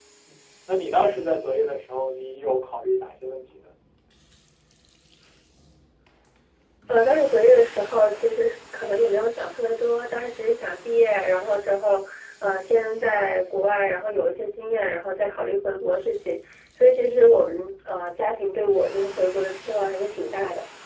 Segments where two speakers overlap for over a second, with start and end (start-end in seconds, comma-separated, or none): none